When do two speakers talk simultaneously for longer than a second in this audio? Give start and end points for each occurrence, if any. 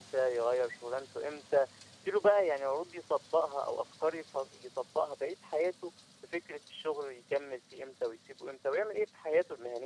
none

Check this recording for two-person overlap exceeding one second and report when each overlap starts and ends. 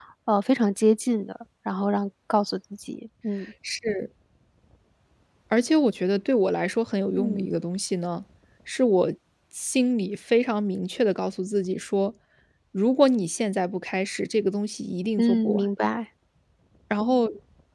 none

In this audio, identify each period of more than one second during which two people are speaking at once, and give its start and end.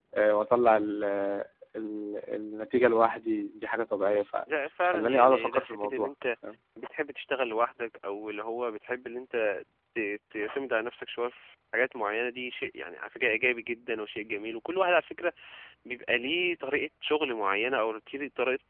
4.8-6.1

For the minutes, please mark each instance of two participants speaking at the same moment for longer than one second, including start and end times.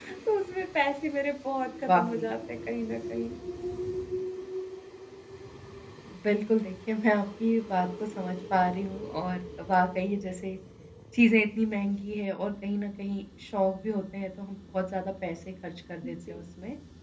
none

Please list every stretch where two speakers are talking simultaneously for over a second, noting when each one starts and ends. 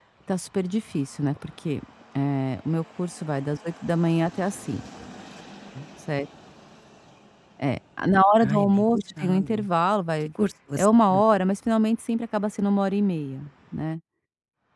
8.4-9.7

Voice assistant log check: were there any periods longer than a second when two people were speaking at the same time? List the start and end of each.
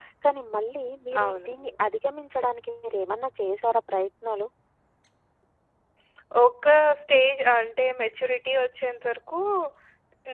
none

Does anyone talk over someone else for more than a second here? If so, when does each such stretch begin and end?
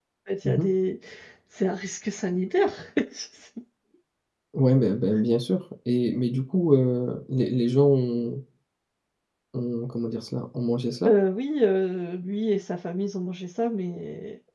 none

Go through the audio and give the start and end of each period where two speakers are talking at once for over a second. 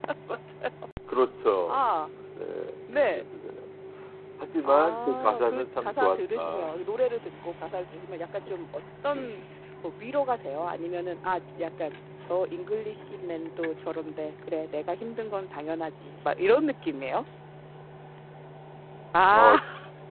4.6-6.7

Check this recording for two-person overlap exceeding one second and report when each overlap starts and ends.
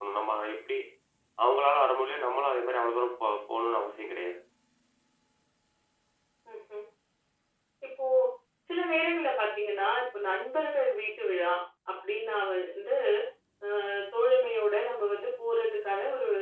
none

